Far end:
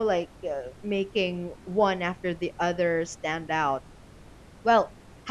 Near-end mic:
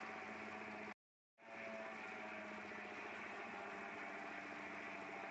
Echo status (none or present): none